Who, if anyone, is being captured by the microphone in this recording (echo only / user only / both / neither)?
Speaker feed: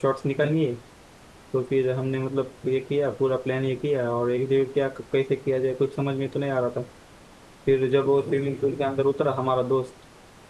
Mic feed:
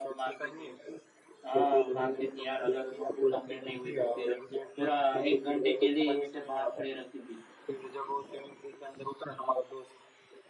both